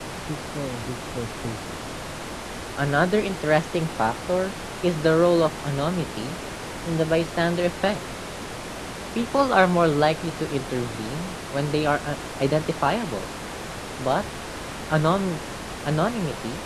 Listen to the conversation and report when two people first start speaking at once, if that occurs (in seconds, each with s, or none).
none